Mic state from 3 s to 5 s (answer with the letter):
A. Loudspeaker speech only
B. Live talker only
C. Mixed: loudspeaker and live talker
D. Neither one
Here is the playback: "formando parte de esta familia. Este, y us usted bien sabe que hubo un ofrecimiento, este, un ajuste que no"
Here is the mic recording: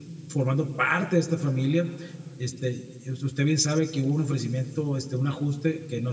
A